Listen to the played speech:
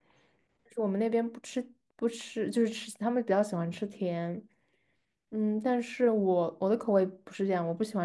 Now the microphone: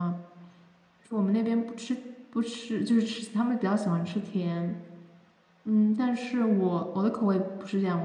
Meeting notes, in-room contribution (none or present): none